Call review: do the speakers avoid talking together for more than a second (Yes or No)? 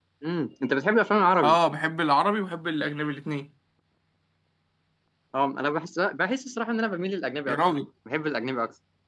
Yes